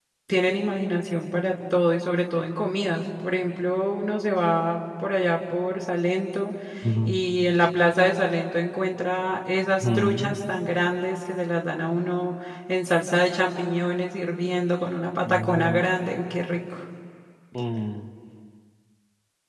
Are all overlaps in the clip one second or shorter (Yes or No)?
Yes